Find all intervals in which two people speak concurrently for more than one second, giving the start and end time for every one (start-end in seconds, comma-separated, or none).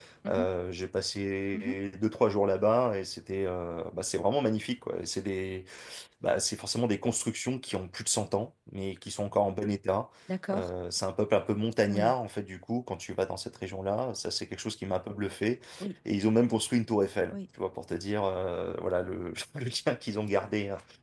none